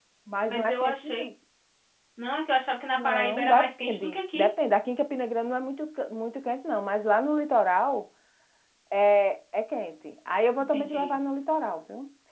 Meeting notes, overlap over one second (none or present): present